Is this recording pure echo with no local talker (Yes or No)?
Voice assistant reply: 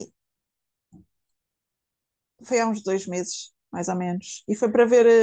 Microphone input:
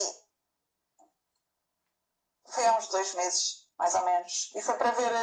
Yes